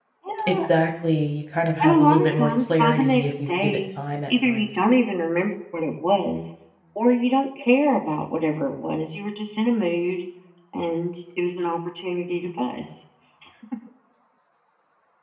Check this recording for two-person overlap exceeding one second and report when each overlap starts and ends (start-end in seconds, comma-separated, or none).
1.8-3.8